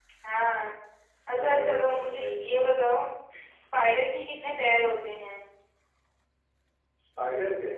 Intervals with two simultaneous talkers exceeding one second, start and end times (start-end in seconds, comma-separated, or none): 1.3-2.7